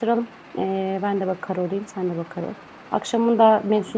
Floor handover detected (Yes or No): No